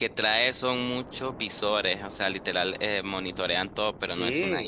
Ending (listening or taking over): taking over